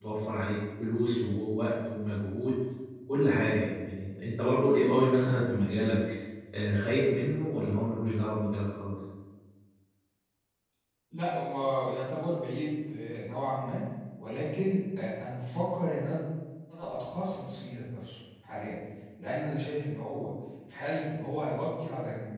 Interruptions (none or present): none